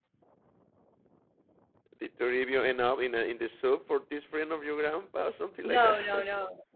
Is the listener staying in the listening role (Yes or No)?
No